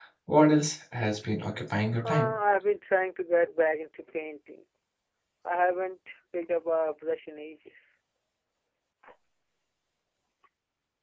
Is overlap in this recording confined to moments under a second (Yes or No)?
Yes